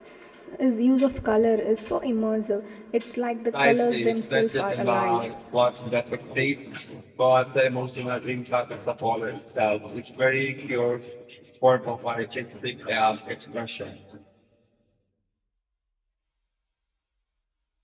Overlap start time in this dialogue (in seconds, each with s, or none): 3.5 s